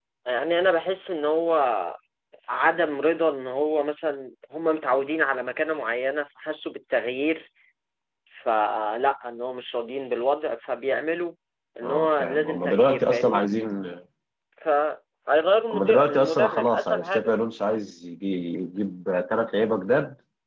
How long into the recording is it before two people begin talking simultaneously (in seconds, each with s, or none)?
11.8 s